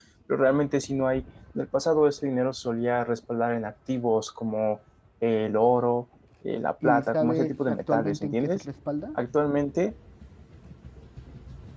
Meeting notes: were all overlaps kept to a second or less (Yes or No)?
No